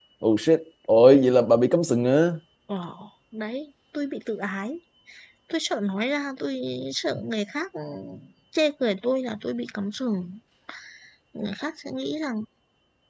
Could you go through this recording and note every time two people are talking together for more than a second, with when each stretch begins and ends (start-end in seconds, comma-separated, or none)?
none